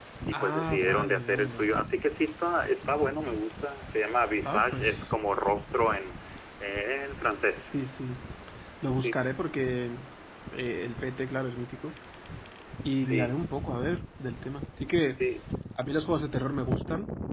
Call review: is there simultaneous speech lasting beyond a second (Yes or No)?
Yes